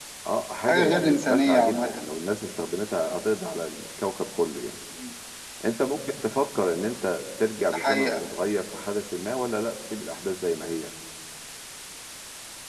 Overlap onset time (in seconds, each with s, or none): 0.7 s